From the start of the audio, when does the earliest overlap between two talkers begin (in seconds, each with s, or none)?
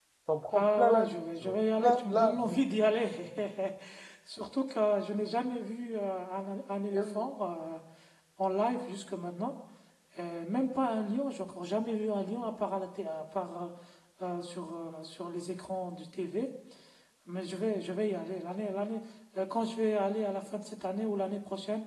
0.5 s